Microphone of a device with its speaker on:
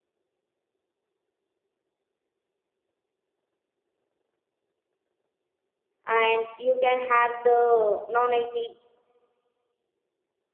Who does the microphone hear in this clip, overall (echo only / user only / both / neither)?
user only